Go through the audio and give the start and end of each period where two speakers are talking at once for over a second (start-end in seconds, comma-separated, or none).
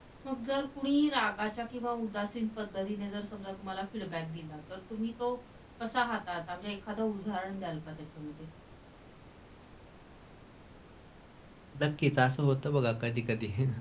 none